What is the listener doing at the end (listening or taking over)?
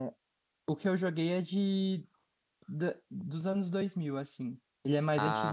listening